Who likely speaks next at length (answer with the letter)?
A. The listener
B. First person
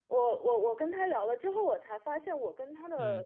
B